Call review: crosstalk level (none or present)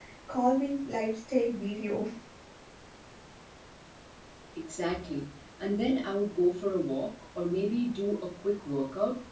none